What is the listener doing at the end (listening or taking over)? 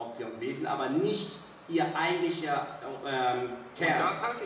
taking over